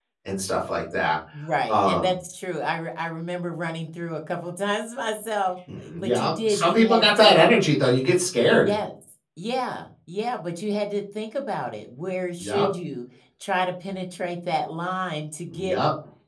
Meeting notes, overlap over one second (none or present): present